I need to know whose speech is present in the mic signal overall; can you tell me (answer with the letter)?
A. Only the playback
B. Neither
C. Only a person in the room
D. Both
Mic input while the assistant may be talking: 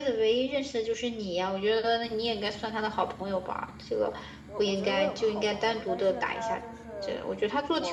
D